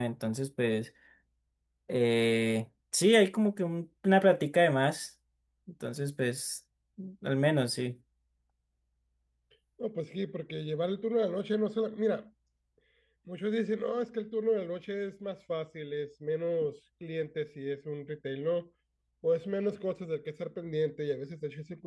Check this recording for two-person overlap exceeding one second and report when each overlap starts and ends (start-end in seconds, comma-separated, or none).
none